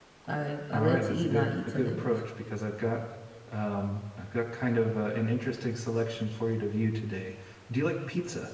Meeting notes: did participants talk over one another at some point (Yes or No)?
Yes